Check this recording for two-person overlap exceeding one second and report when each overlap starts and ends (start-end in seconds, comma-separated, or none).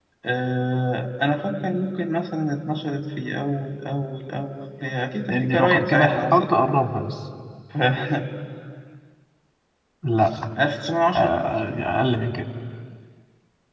5.3-6.6